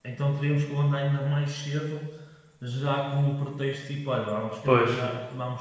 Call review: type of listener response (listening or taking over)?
listening